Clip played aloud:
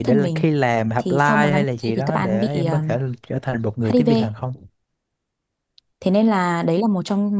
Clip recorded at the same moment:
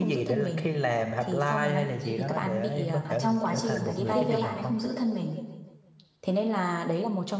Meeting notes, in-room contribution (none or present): present